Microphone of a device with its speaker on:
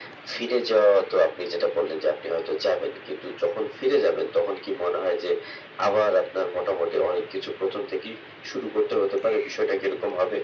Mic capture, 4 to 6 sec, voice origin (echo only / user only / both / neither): echo only